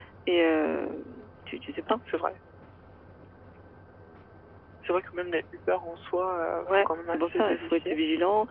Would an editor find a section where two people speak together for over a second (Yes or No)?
Yes